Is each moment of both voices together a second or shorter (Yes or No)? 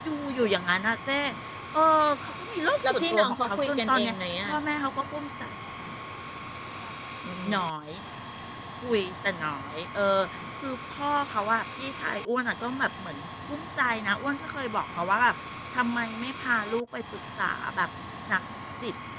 No